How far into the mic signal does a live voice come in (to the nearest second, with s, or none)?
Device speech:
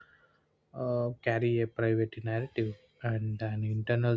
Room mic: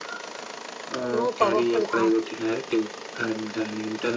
1 s